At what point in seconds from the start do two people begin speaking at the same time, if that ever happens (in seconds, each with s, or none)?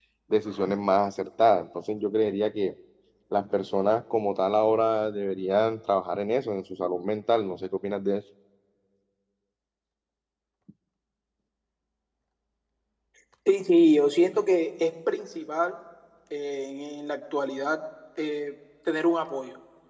none